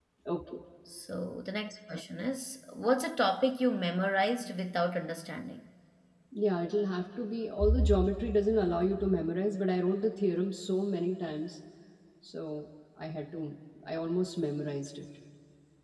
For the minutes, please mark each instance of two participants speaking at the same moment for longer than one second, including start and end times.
none

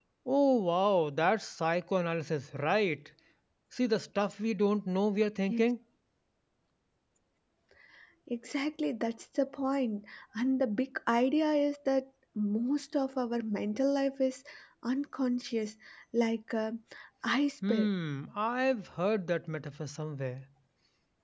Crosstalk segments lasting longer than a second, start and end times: none

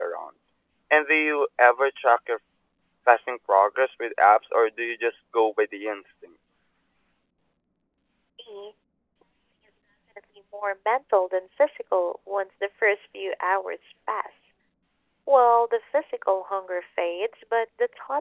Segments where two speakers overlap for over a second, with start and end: none

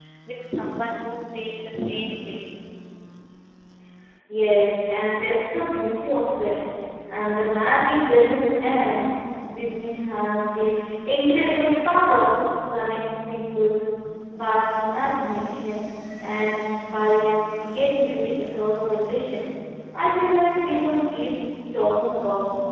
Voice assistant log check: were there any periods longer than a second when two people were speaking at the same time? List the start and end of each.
none

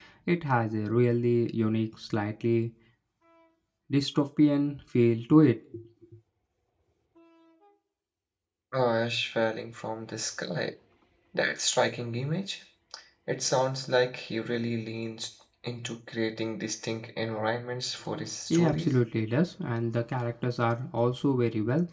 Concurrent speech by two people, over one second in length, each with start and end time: none

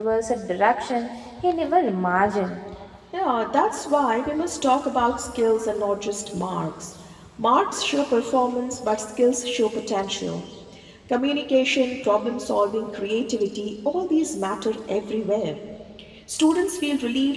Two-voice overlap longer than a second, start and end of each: none

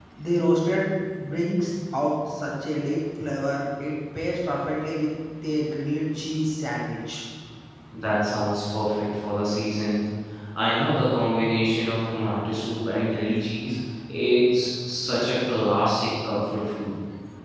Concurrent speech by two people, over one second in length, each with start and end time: none

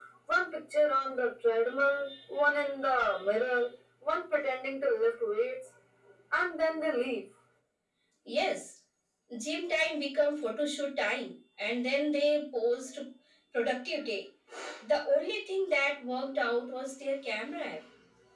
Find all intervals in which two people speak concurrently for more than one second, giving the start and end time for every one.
none

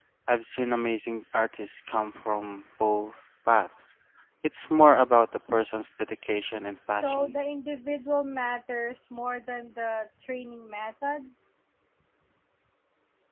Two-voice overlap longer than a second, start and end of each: none

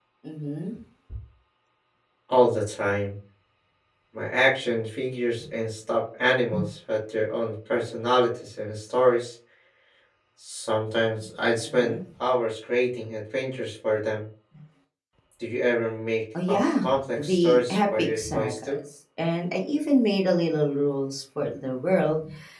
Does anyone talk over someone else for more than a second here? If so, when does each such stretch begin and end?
16.5-18.8

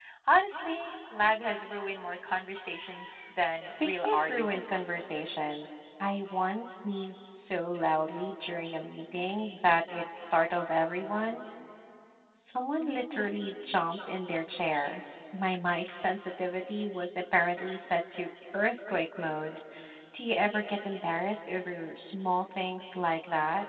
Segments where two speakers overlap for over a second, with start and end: 3.5-4.9

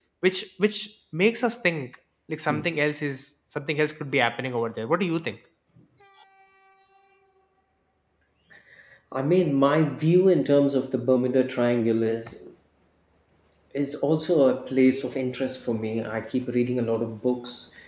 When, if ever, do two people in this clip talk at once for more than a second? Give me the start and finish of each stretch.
none

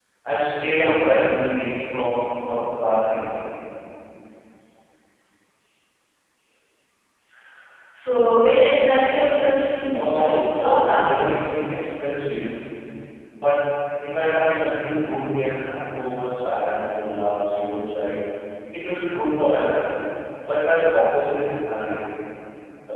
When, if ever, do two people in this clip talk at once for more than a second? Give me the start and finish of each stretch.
9.9-11.2

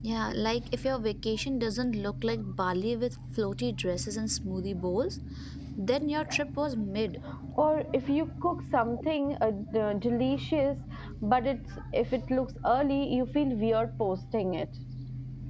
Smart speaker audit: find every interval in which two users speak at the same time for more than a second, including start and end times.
none

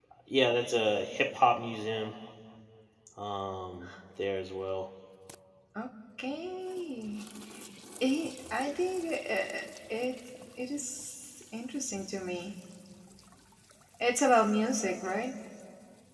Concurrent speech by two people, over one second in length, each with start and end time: none

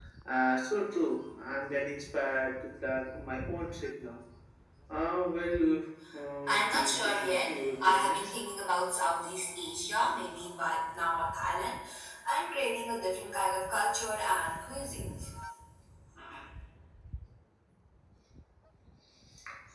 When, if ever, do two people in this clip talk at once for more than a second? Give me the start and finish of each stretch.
6.5-8.2

